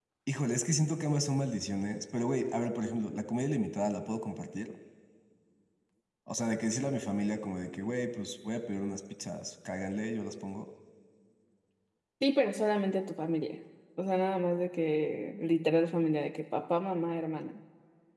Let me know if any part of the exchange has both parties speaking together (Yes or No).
No